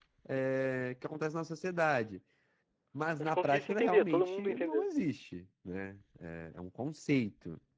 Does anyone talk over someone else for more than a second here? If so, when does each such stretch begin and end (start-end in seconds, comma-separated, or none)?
3.2-4.8